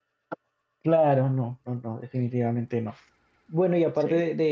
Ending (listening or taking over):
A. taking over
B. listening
B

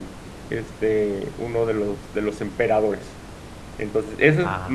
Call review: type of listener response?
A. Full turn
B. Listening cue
B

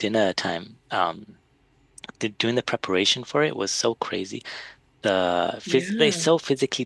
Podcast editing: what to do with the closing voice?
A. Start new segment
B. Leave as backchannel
B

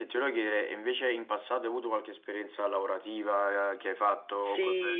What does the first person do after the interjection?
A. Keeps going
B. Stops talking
B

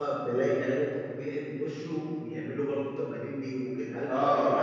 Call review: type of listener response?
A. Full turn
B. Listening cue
A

